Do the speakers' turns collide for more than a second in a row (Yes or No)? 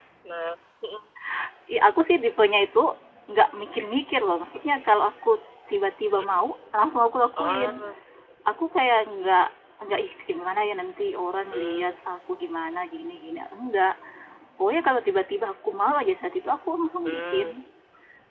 No